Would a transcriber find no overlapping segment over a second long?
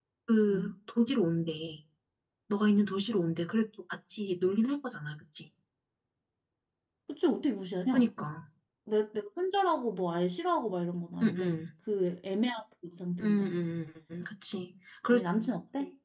Yes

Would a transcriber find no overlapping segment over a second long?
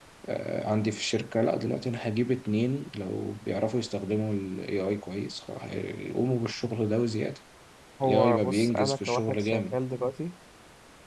No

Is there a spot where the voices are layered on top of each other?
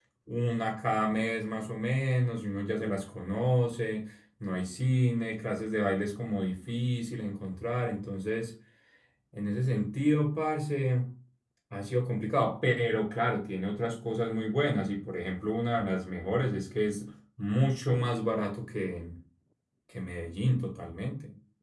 No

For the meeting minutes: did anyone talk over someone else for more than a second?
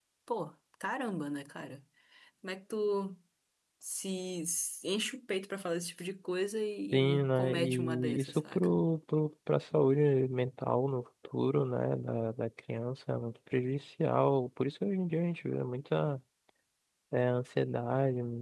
Yes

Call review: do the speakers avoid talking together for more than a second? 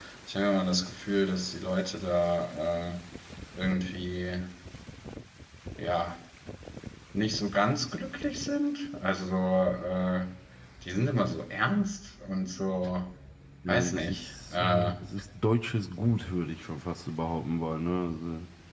No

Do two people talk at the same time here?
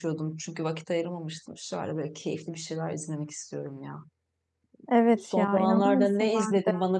Yes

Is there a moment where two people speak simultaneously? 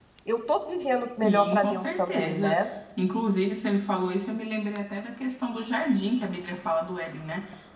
Yes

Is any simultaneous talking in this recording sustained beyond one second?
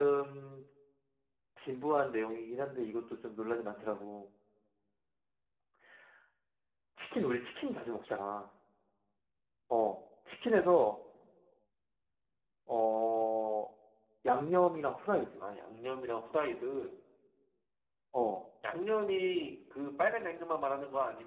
No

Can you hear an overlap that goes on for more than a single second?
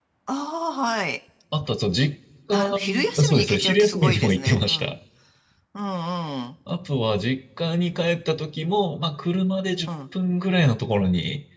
Yes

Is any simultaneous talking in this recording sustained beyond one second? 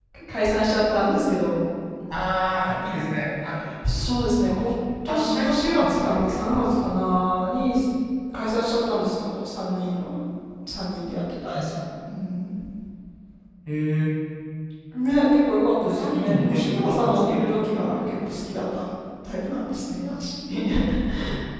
Yes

